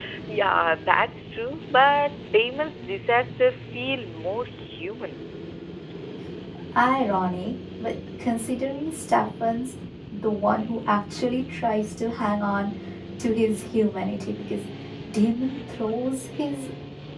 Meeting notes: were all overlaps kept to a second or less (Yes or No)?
Yes